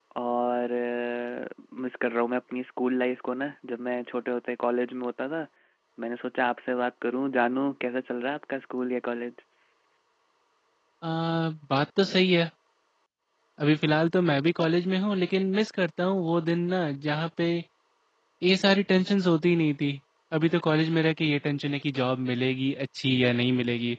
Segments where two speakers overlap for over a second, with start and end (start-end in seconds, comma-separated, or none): none